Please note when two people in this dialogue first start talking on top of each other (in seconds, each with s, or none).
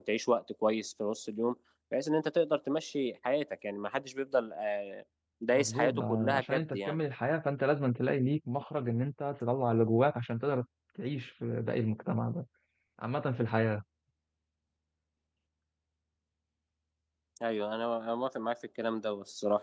5.5 s